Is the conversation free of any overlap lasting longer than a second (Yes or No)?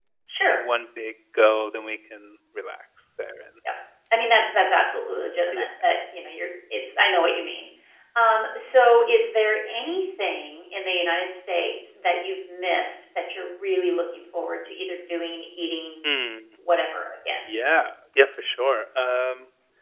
Yes